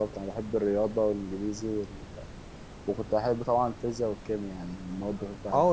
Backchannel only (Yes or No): No